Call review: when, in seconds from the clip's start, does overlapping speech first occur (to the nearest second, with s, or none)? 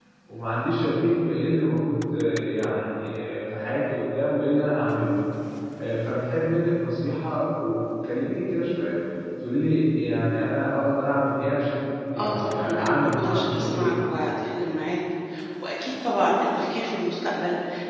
12 s